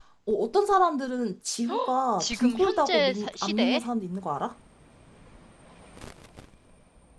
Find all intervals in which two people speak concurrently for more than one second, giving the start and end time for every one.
2.2-3.8

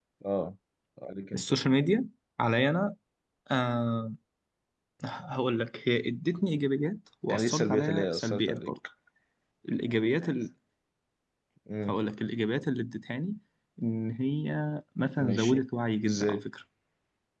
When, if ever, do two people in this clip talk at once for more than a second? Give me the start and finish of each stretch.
7.3-8.7

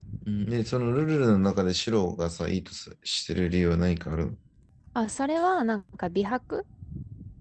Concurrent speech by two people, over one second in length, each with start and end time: none

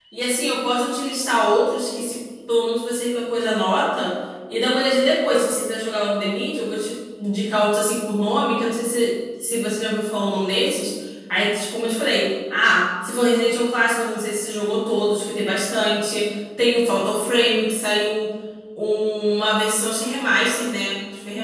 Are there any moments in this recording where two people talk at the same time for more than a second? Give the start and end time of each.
none

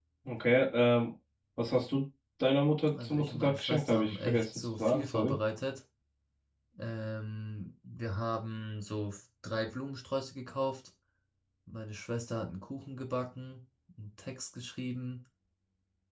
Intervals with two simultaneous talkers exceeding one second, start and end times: 2.9-5.3

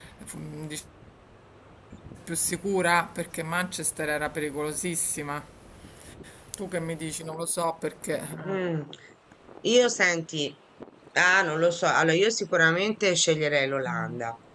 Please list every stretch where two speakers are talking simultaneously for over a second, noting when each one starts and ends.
none

